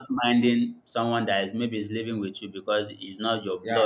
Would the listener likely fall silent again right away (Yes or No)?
Yes